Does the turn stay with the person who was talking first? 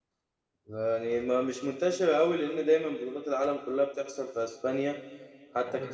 Yes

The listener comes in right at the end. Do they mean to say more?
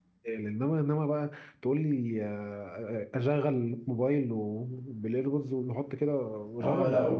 Yes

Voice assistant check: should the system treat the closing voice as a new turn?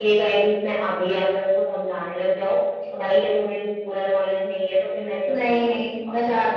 Yes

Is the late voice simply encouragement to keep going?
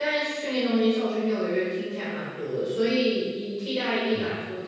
Yes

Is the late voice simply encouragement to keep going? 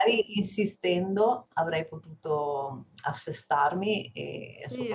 No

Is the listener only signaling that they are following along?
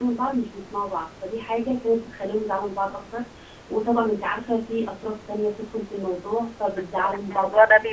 No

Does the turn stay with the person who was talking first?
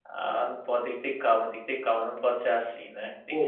No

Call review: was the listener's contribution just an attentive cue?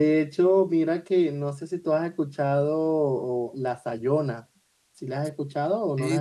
No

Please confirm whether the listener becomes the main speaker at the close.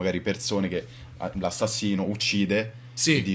No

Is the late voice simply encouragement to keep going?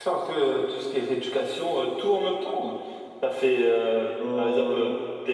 Yes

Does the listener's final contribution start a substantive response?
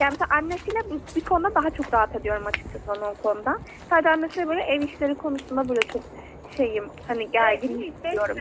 Yes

